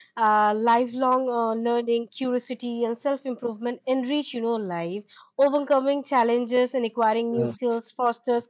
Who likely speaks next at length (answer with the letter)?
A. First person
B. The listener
A